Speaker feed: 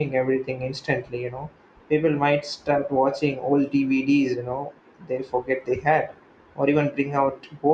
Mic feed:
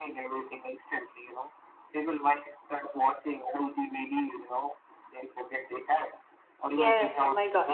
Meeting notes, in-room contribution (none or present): present